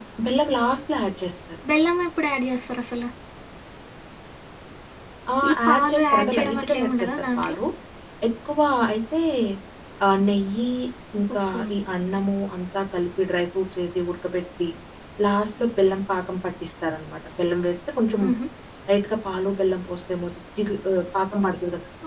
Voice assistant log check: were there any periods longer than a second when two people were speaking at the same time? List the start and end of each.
5.5-7.6

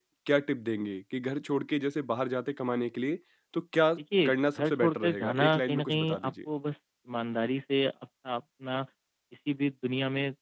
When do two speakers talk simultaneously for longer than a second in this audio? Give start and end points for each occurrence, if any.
4.2-6.5

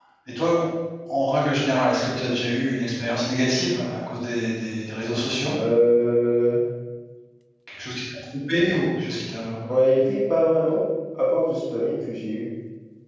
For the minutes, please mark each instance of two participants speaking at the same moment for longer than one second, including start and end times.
none

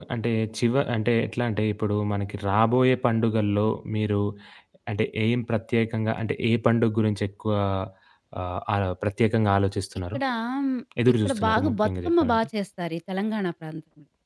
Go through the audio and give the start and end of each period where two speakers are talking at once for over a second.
11.2-12.5

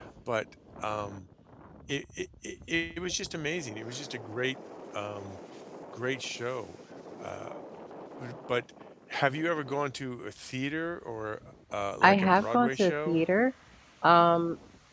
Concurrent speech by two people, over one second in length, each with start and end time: 12.0-13.2

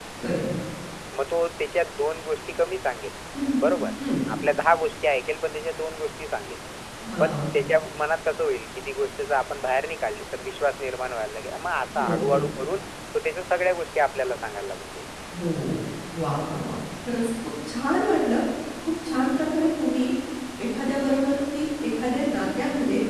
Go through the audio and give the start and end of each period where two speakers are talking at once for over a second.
none

